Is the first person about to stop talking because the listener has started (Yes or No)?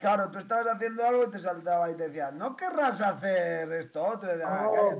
Yes